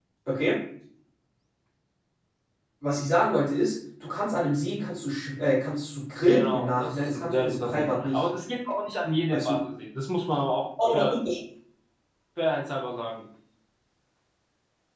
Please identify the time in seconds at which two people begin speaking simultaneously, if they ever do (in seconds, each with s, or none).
6.3 s